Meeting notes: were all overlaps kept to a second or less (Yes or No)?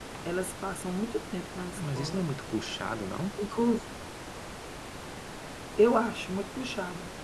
Yes